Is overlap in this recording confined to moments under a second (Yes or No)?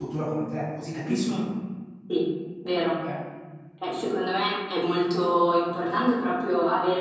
Yes